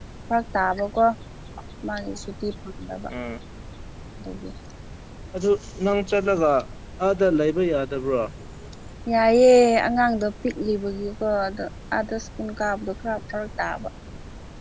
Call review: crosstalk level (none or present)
none